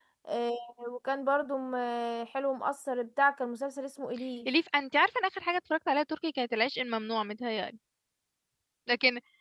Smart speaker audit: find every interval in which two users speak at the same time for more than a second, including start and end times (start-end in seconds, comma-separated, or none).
none